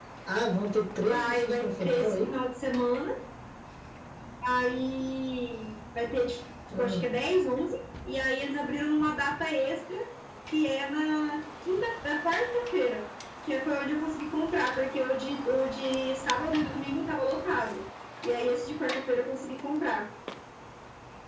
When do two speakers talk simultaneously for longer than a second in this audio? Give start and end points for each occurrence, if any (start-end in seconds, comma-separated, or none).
1.0-2.3